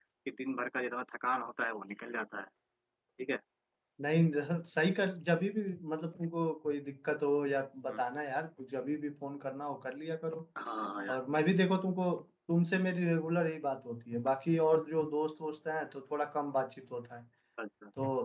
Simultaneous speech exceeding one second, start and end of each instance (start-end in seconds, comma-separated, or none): none